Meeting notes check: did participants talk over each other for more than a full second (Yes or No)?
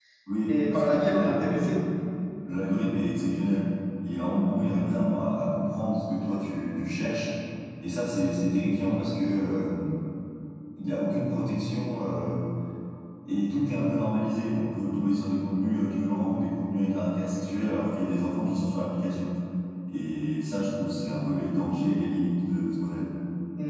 Yes